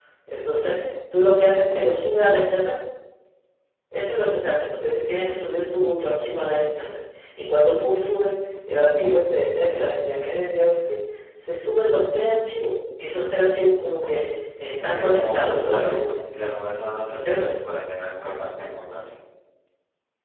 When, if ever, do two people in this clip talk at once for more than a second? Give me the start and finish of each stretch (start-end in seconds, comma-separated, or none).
14.8-16.2